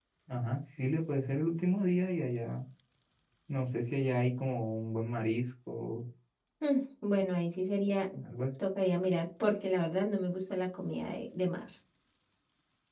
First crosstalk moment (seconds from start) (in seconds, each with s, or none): none